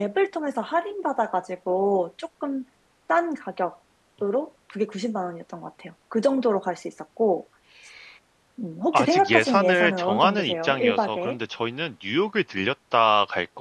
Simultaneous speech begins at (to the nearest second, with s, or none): 9 s